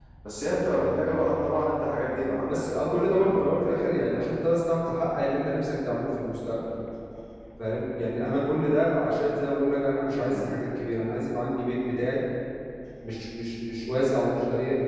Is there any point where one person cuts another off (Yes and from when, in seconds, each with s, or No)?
Yes, from 2.4 s